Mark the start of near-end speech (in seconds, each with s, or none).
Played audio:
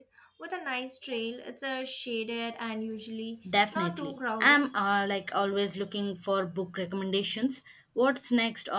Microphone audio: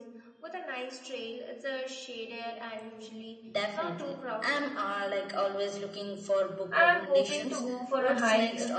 6.7 s